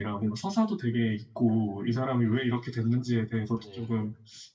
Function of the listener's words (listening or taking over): listening